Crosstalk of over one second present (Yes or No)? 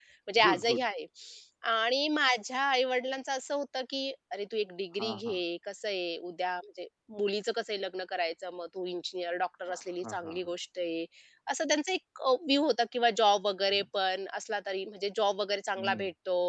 No